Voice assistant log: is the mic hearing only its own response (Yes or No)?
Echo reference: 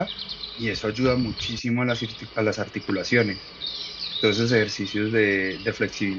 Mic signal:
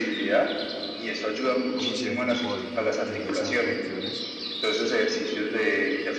No